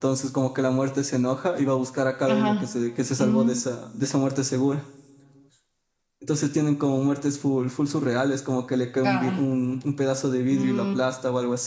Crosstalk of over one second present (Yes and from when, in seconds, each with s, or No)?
No